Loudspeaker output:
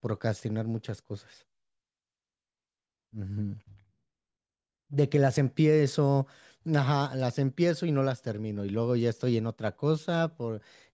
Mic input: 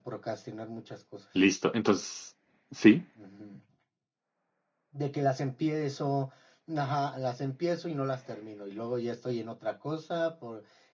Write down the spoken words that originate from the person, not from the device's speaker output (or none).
listo. Entonces, sí.